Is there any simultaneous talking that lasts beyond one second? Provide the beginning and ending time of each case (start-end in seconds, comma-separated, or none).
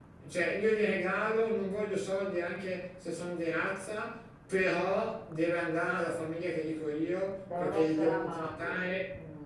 7.5-8.8